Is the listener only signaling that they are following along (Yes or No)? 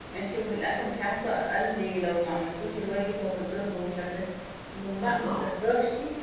Yes